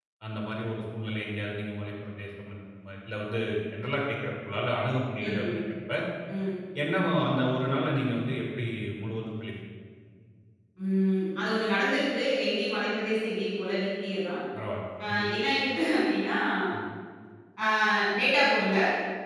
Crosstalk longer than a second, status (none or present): none